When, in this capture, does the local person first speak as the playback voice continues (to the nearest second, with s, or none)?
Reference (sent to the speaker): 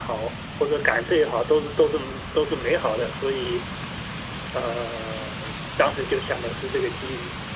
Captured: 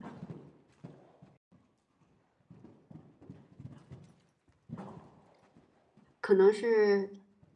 6 s